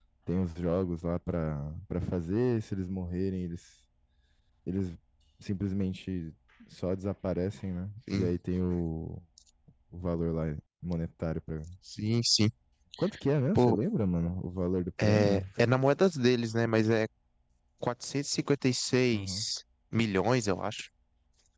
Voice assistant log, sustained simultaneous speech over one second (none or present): none